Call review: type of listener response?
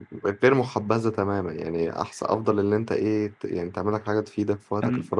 listening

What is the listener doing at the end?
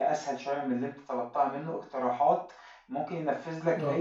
listening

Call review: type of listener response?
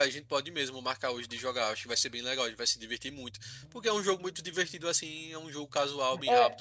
taking over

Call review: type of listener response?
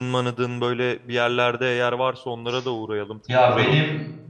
taking over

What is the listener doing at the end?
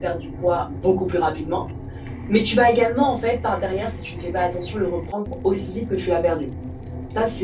listening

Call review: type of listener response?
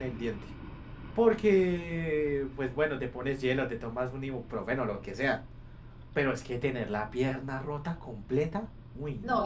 taking over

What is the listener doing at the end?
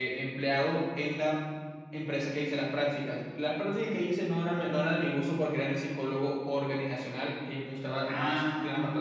taking over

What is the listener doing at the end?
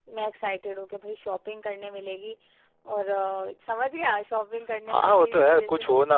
taking over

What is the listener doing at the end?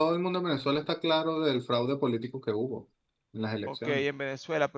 taking over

